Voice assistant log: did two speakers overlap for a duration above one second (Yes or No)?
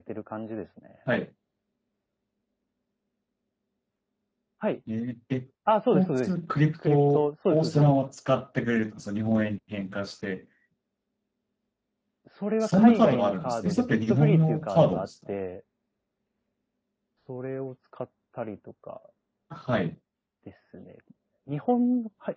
Yes